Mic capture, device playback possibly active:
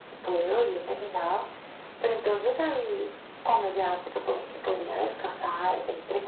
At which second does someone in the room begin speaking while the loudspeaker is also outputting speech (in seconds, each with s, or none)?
none